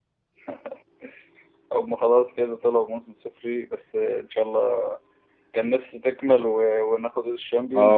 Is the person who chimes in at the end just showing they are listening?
No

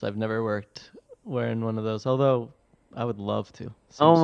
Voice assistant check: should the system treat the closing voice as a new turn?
Yes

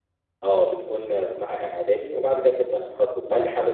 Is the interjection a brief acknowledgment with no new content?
Yes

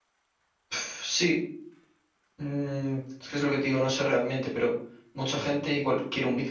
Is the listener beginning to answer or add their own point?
No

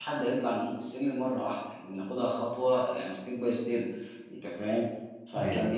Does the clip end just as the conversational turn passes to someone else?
No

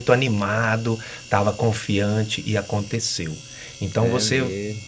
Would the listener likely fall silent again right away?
Yes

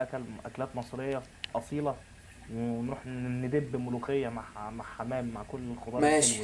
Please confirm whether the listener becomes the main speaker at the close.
Yes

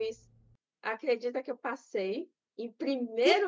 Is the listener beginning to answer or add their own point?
Yes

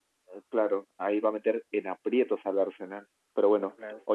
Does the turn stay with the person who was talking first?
Yes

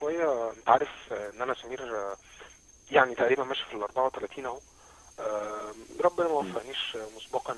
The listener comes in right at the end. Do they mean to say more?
No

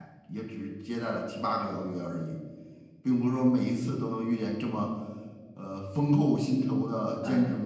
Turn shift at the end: Yes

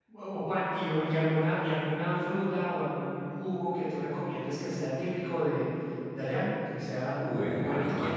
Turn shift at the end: Yes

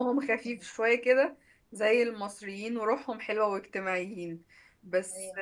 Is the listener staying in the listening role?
Yes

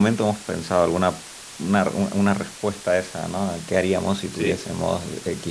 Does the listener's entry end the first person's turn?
No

